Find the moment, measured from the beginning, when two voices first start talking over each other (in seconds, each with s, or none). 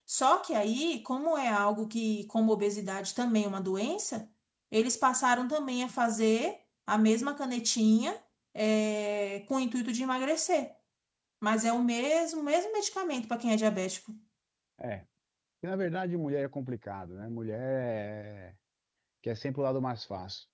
none